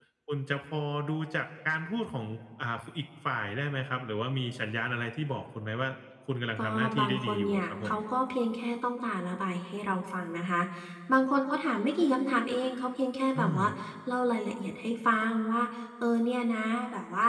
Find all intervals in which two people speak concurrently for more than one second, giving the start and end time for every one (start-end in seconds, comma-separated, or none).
6.6-8.0